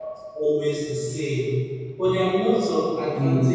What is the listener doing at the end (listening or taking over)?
listening